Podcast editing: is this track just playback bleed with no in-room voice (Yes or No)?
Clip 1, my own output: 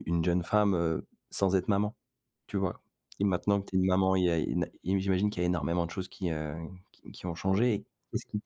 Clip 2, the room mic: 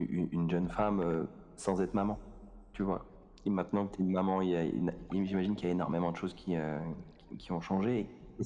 Yes